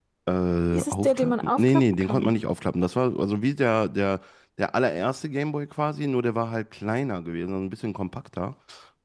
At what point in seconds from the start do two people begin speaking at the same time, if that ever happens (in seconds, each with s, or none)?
0.7 s